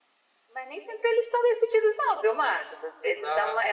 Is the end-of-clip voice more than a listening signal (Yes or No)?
No